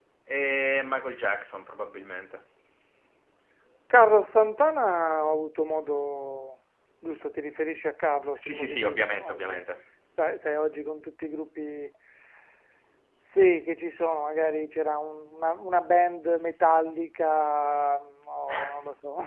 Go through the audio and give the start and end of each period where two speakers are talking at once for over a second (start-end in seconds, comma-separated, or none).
8.4-9.6